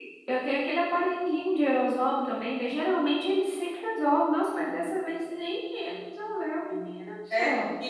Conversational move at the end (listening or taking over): taking over